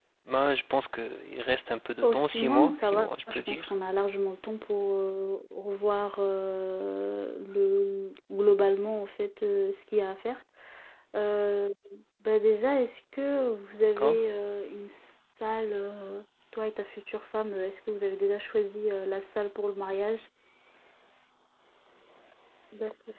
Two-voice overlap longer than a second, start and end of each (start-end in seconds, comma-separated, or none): 2.0-3.7